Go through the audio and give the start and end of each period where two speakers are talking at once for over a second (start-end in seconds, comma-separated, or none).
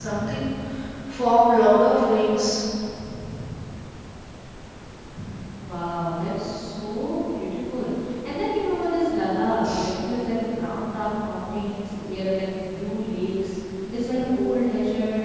none